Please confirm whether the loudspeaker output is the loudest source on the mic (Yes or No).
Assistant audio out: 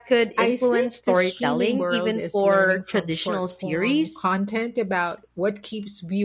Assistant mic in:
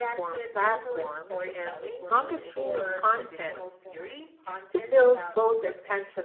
No